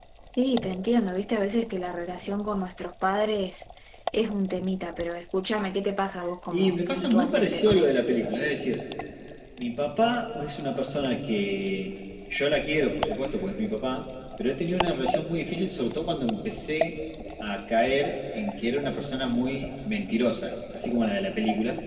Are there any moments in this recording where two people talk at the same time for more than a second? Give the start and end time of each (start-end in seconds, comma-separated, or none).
6.5-8.0